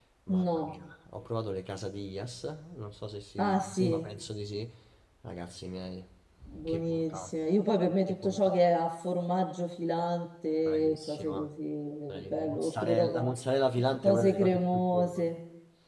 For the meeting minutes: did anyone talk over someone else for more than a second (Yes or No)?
Yes